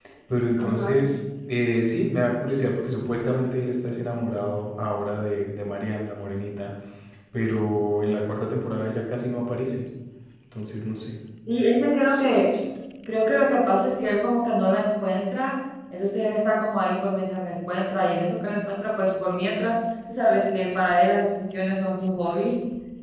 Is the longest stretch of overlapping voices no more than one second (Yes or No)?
Yes